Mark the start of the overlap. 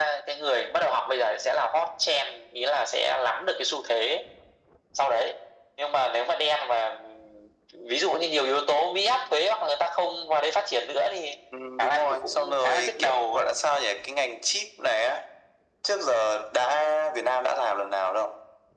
11.8 s

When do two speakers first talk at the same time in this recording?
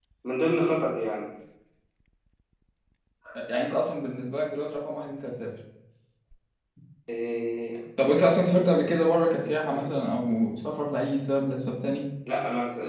none

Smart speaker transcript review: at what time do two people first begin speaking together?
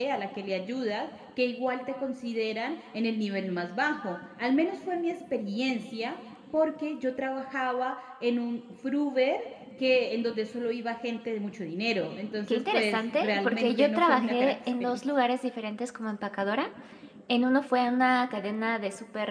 12.5 s

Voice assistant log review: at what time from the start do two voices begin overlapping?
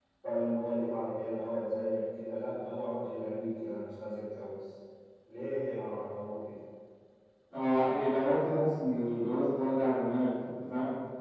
none

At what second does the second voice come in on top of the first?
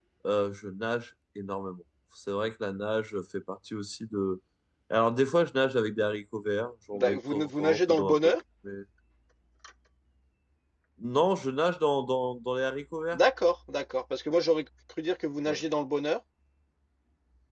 6.9 s

